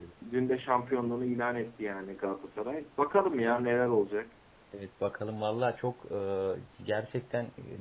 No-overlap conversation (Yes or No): Yes